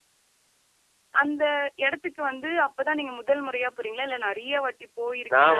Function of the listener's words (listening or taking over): taking over